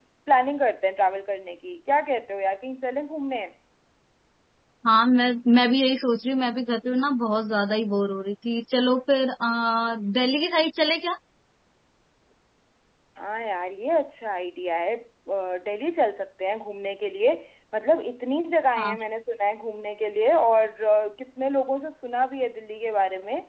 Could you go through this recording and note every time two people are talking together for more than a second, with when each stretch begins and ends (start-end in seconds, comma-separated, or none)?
none